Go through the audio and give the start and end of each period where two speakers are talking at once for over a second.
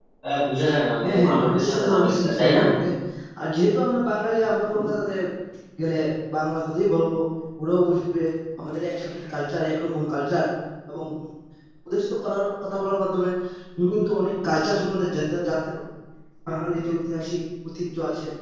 1.0-2.6

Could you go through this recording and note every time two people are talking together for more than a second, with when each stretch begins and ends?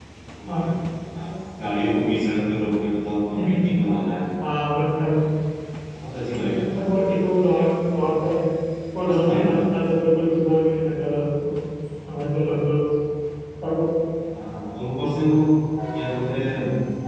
none

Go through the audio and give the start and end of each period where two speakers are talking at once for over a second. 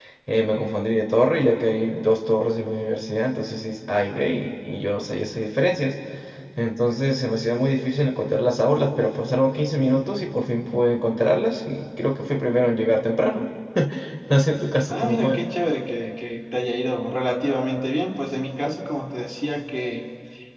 none

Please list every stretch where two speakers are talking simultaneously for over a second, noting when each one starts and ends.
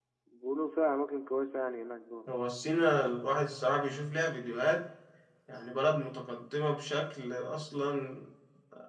none

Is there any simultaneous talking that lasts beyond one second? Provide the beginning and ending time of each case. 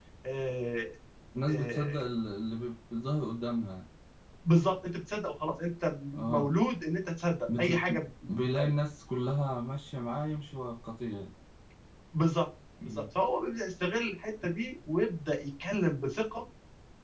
none

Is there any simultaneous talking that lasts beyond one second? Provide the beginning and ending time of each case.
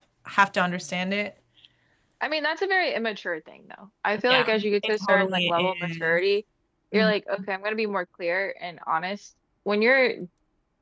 4.3-6.2

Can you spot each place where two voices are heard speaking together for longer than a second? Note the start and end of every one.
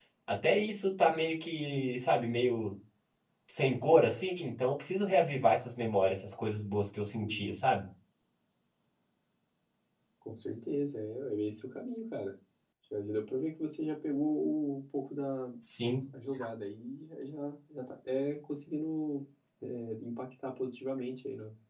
none

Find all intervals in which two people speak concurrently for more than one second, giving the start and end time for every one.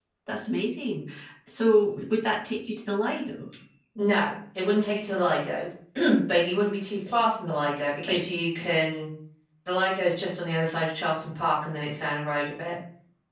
none

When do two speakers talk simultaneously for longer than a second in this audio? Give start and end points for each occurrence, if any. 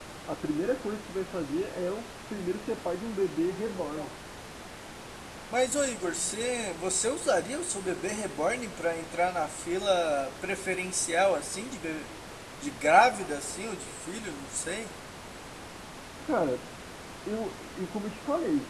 none

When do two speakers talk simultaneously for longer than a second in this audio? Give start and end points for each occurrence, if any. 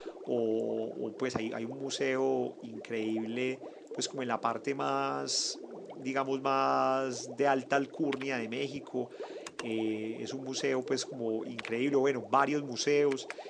none

